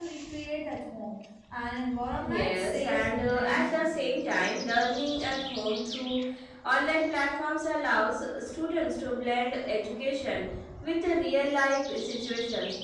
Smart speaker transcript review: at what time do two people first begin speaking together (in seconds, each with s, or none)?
2.2 s